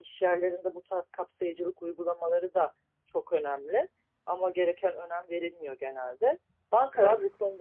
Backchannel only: Yes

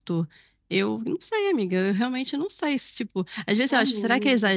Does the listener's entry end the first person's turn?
No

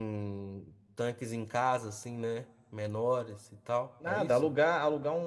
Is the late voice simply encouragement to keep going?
No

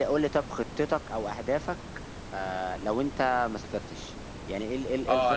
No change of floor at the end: No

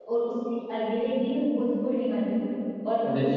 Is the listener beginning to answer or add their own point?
No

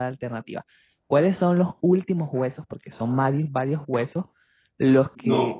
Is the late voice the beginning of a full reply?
No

